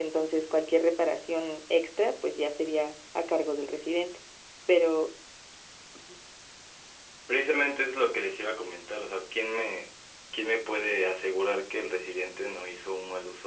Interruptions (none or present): none